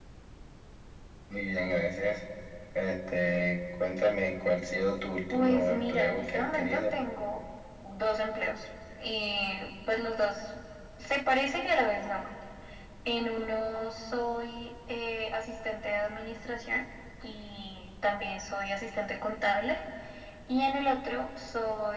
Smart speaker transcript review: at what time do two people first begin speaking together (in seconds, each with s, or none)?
5.3 s